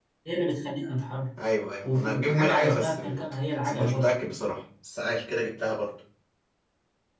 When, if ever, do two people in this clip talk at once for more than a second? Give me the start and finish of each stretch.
1.9-3.2

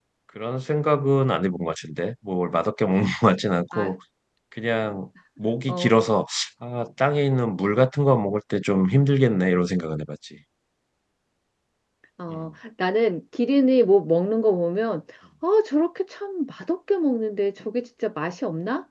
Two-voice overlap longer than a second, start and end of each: none

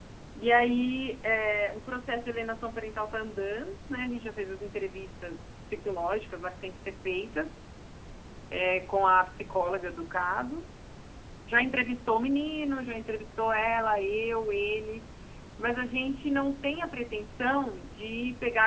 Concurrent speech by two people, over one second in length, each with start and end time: none

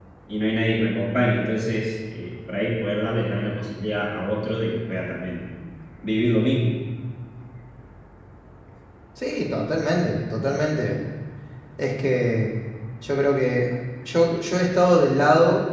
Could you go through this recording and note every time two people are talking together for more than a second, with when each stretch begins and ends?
none

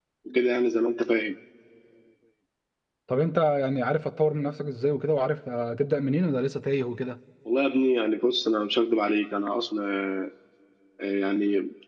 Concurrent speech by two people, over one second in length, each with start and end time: none

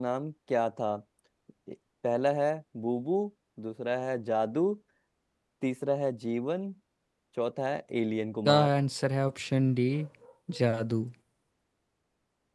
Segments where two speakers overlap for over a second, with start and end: none

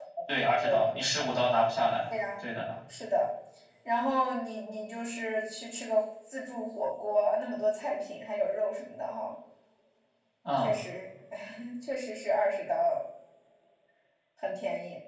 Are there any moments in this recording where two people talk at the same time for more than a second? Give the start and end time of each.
none

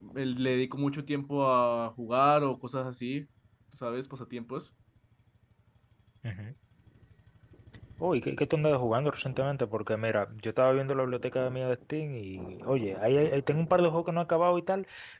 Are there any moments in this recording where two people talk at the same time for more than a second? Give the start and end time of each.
none

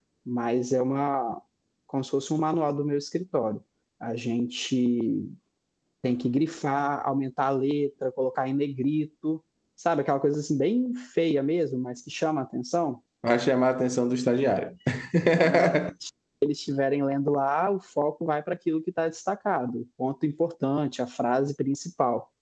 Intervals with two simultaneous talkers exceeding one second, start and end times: none

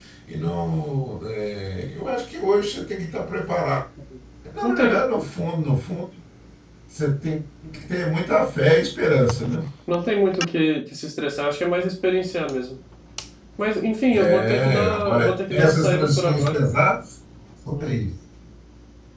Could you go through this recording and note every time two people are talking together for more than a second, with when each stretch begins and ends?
14.1-16.6

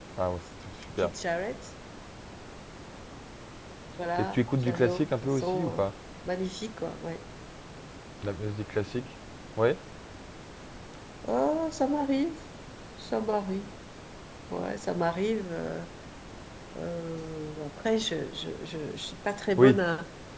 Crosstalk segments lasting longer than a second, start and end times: 4.2-5.8

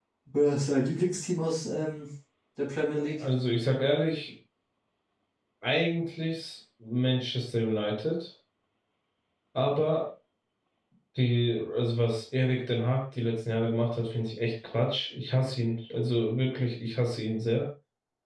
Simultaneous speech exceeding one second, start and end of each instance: none

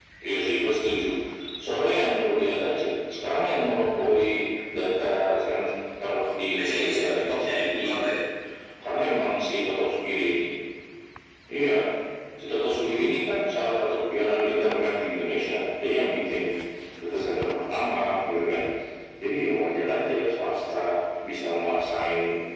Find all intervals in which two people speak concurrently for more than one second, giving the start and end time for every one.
6.6-8.0

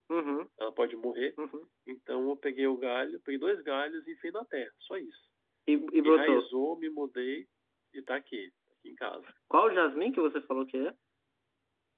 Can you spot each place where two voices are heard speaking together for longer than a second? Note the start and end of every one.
none

